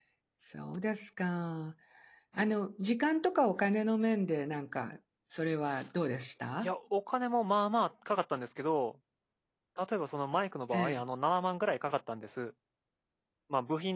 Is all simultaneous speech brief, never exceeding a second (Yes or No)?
Yes